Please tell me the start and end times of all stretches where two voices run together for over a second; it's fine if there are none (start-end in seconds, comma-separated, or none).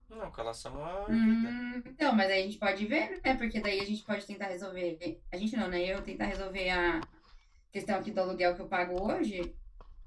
none